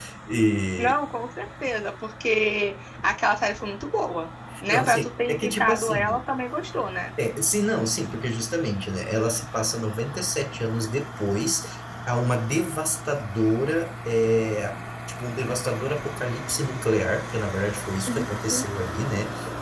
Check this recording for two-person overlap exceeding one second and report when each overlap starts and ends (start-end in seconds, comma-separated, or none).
4.7-6.2